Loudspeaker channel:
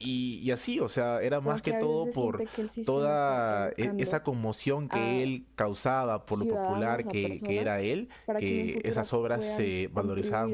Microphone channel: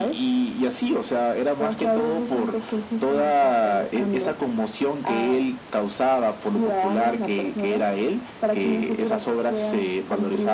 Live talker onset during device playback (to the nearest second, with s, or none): none